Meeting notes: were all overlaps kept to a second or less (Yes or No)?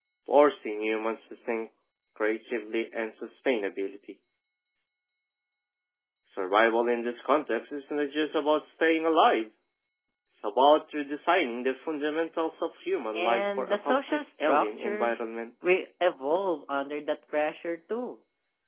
No